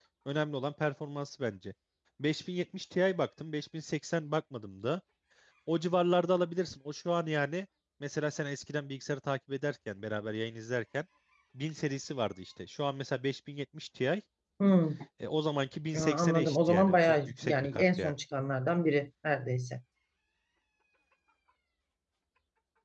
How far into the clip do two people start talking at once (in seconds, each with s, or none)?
15.9 s